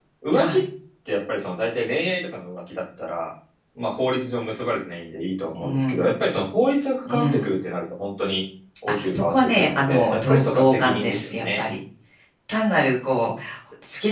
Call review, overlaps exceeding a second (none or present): present